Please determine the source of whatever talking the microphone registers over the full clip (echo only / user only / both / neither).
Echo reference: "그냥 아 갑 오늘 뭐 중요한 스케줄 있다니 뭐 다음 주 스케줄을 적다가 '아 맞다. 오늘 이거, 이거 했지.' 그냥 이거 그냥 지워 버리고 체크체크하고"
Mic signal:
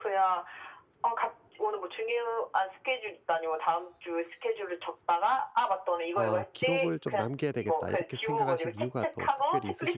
both